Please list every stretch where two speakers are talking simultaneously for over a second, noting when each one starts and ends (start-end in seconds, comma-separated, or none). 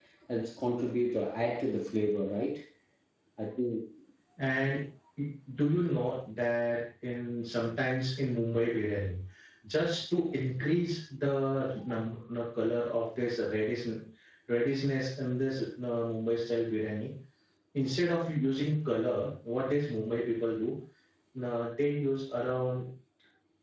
none